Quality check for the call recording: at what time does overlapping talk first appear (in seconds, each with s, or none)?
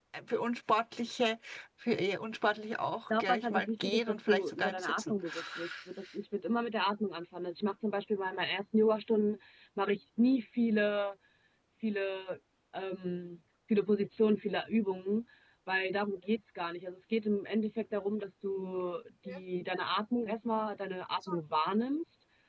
3.1 s